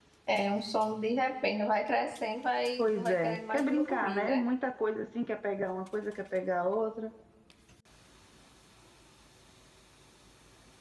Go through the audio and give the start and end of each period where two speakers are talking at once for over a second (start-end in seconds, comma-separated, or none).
2.8-4.4